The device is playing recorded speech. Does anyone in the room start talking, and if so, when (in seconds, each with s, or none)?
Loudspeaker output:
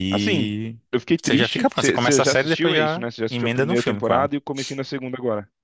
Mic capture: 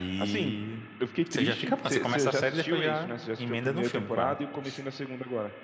none